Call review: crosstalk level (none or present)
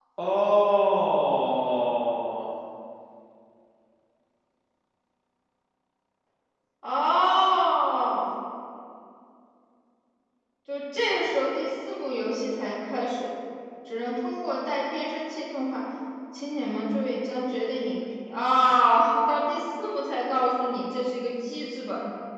none